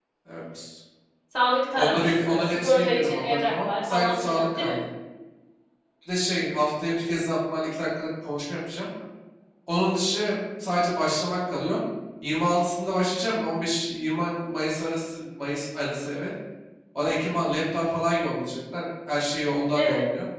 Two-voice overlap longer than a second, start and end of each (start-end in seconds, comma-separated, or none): 1.8-4.7